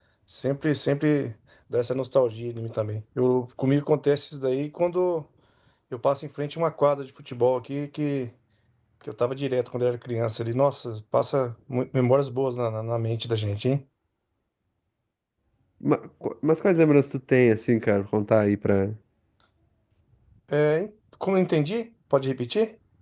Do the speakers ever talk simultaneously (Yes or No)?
No